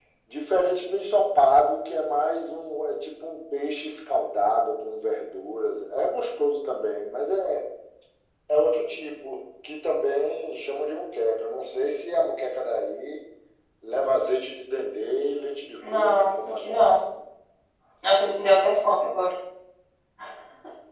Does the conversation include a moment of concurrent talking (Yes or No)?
Yes